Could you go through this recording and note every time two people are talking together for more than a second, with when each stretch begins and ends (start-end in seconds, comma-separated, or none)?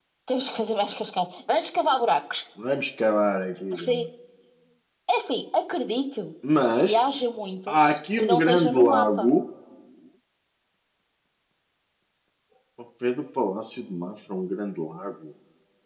7.7-9.3